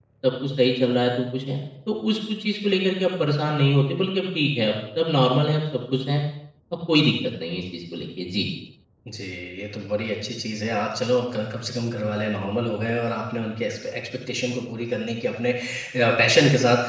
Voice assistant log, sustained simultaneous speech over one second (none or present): none